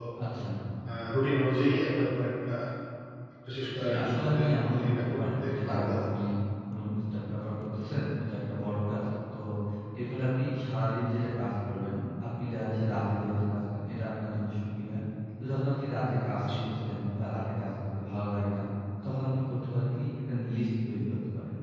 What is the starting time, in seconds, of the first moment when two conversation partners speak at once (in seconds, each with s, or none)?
3.8 s